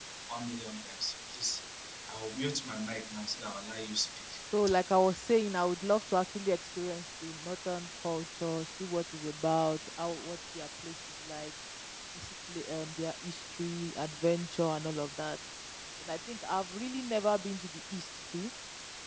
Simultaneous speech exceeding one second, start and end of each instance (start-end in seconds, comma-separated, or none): none